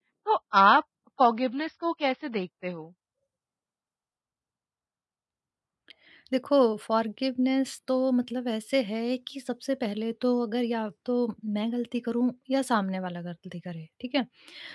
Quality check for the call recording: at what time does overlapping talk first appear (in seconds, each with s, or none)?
none